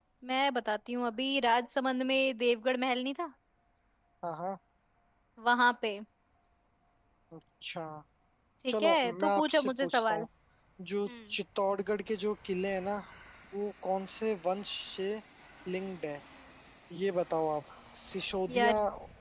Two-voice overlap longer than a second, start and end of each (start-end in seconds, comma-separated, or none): 8.7-10.2